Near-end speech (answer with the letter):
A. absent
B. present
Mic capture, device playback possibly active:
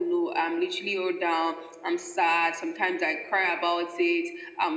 A